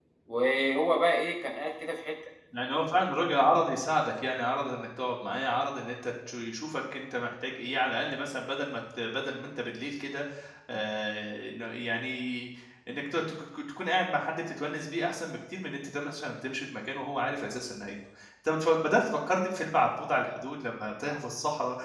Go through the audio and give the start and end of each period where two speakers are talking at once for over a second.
none

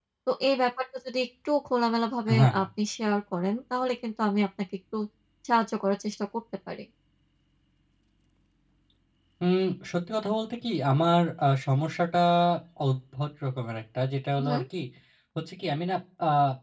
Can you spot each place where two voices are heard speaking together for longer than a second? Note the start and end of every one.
none

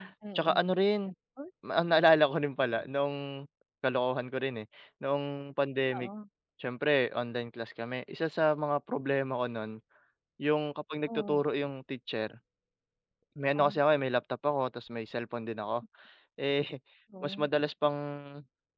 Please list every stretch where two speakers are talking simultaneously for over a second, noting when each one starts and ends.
none

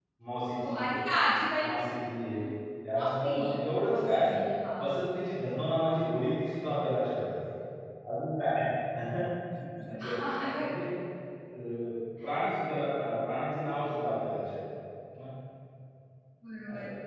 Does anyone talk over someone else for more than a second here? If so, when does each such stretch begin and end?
none

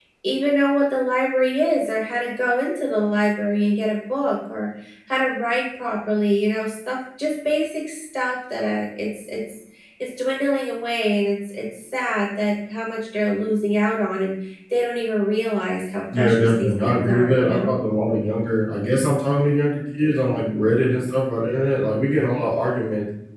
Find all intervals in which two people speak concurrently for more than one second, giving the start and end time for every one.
16.2-17.8

